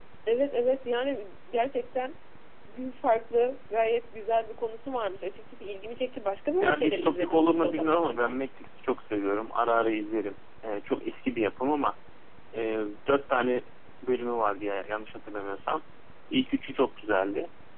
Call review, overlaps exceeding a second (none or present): present